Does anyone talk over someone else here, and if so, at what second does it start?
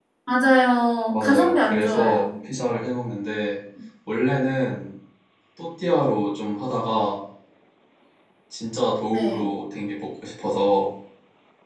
1.1 s

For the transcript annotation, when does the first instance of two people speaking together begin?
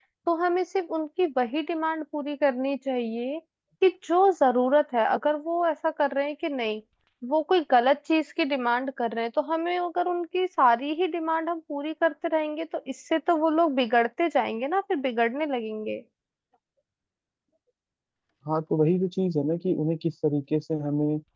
none

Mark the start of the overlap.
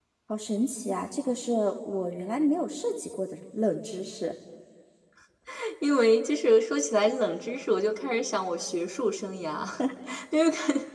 none

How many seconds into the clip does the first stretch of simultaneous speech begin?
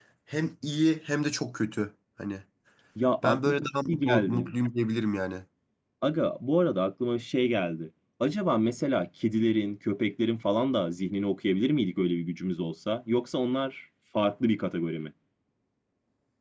3.2 s

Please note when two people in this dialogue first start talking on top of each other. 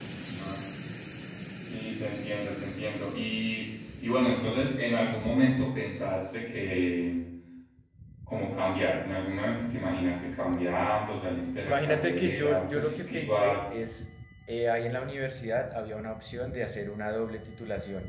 11.6 s

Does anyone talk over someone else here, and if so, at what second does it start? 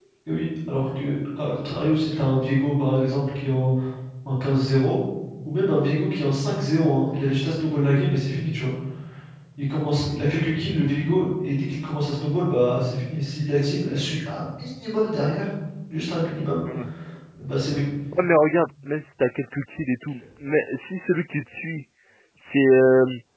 none

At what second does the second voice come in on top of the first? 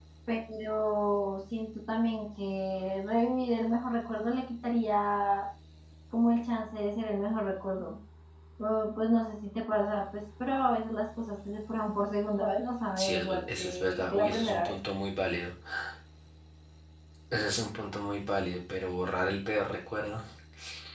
13.0 s

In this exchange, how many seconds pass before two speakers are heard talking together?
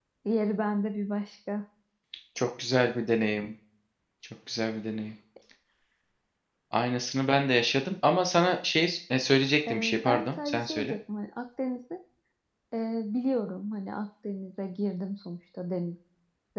9.7 s

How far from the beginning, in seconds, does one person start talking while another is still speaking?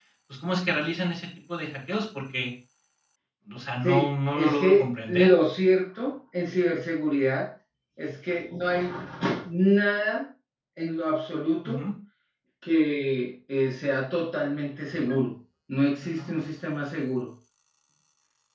3.8 s

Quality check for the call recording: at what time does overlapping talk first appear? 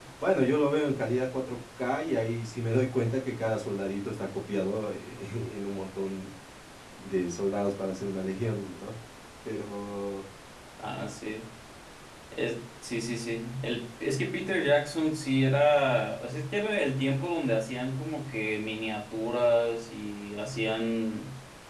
none

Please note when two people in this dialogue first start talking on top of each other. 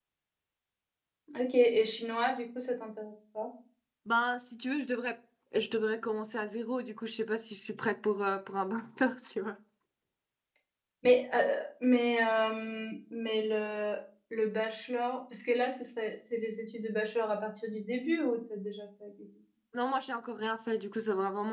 none

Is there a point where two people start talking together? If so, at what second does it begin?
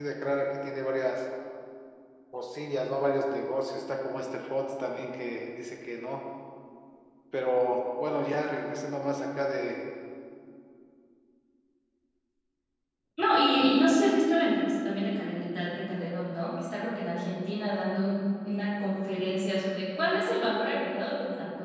none

